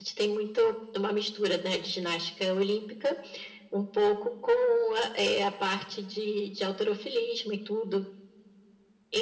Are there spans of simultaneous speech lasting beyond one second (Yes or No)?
No